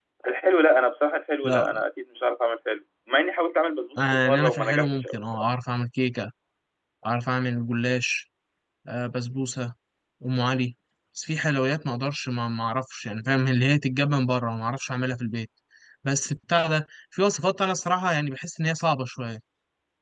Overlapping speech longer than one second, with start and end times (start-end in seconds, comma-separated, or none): 4.0-5.4